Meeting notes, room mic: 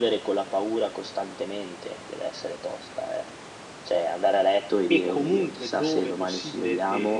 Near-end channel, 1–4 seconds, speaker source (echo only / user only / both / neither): echo only